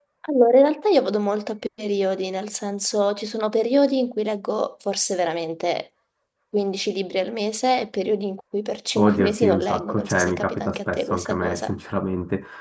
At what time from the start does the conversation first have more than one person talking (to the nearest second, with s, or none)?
9 s